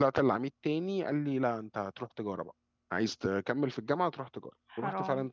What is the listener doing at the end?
listening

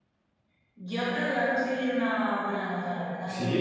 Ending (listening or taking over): taking over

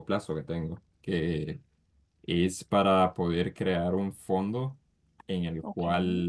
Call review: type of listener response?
listening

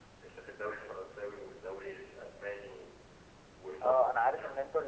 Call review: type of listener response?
taking over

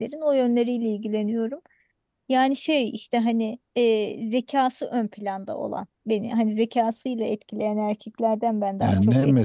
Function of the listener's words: taking over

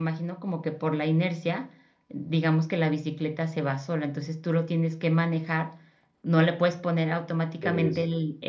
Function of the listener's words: listening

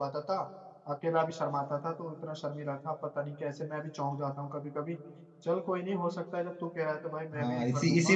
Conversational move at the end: taking over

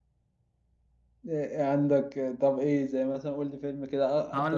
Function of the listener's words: taking over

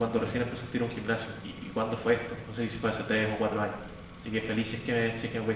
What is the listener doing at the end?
taking over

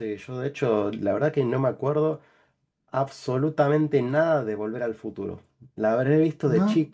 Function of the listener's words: listening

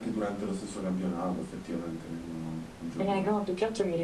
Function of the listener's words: taking over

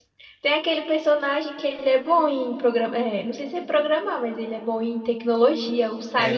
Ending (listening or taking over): taking over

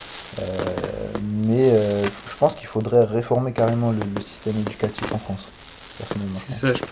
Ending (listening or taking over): taking over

